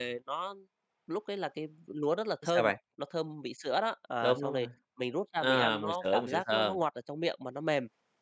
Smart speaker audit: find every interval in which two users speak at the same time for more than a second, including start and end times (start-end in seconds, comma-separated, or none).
5.4-6.8